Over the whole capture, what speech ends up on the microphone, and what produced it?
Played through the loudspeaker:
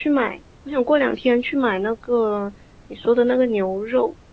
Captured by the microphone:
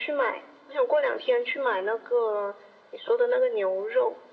echo only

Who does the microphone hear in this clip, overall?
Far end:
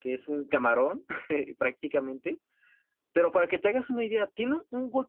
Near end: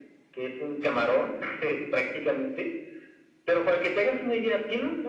echo only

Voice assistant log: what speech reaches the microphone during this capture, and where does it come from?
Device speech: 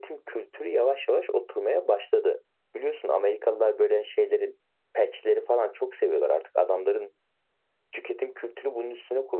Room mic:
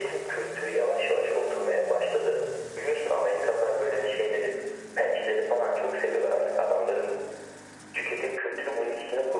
echo only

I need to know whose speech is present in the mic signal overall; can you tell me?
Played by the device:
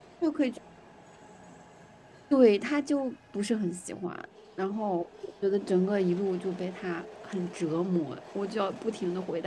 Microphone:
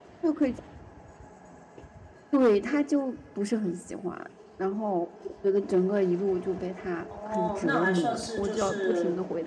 both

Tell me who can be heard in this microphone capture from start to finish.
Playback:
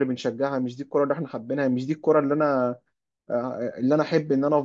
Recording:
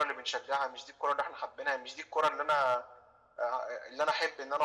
echo only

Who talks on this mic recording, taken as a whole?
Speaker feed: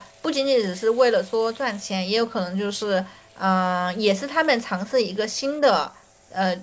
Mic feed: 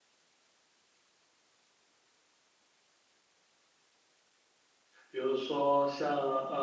user only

